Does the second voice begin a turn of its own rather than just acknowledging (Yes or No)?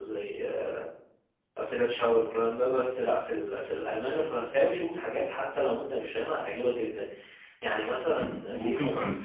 Yes